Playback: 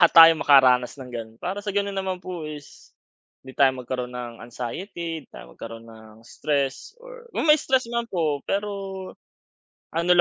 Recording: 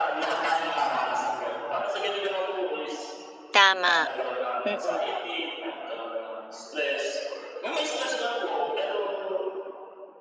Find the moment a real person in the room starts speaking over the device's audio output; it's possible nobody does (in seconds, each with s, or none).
3.5 s